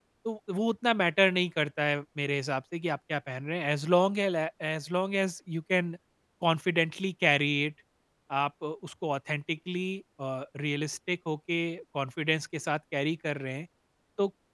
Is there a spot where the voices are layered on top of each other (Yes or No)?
No